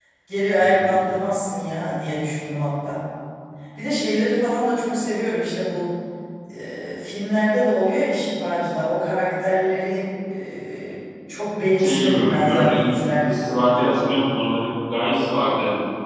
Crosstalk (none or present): present